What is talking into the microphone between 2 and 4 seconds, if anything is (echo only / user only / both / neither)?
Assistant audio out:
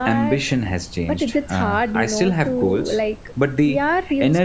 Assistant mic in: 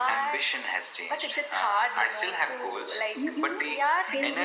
both